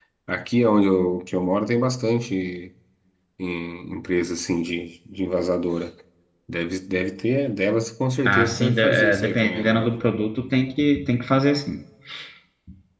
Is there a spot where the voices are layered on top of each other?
Yes, from 8.2 s

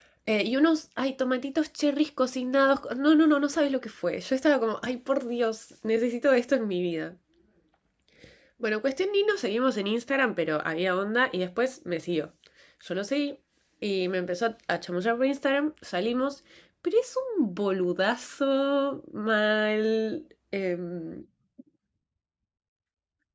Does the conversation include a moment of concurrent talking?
No

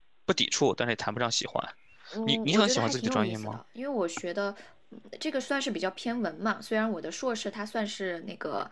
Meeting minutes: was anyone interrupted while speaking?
Yes, from 2.3 s

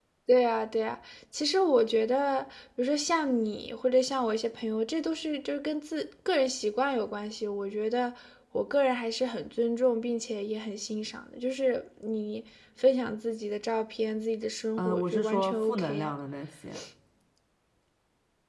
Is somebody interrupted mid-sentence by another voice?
Yes, from 14.8 s

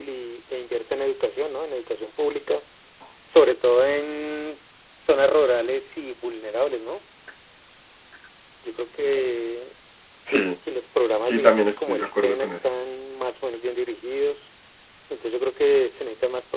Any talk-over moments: Yes, from 11.2 s

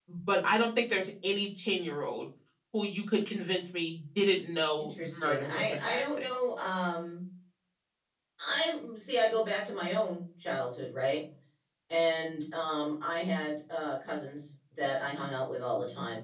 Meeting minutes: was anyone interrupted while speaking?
Yes, from 4.8 s

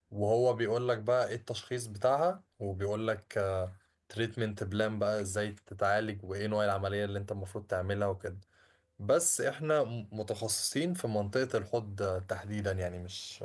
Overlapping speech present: No

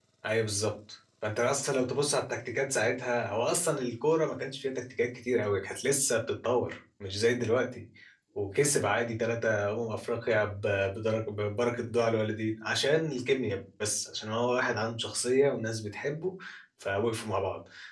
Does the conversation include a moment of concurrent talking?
No

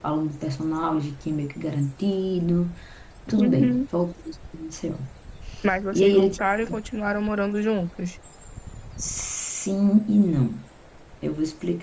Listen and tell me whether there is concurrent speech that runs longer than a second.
No

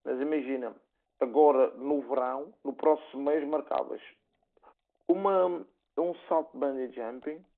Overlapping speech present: No

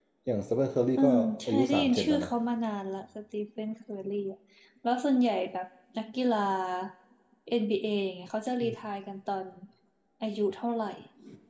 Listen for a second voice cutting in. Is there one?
Yes, from 1.0 s

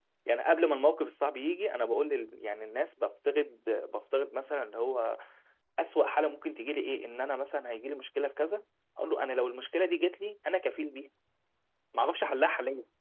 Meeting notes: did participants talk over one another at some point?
No

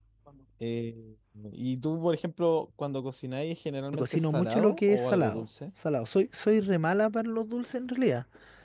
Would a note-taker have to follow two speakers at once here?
Yes, from 3.9 s

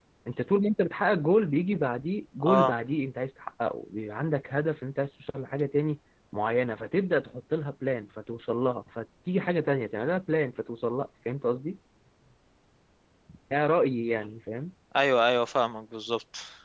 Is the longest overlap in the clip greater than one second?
No

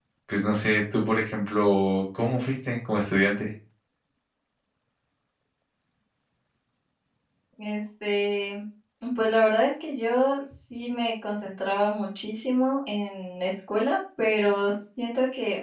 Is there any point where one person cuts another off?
No

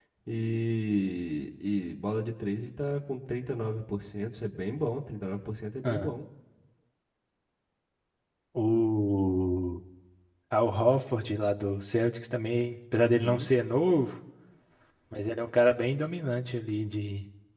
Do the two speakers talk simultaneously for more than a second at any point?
No

